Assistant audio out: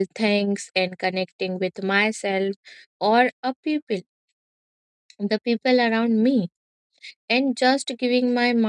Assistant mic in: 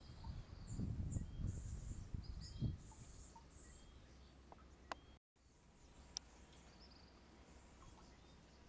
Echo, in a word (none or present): none